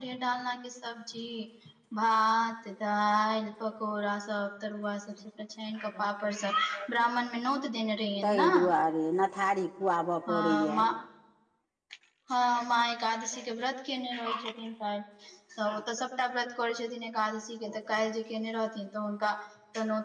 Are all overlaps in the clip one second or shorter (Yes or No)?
Yes